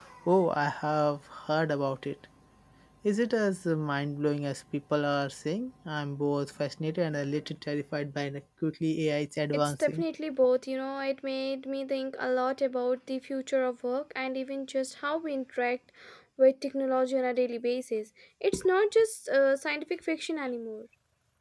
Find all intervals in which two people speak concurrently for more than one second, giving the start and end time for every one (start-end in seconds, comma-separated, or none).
none